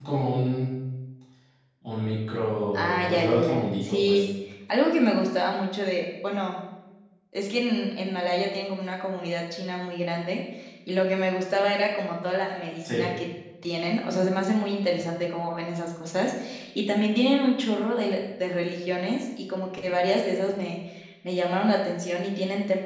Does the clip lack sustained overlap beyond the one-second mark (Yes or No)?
No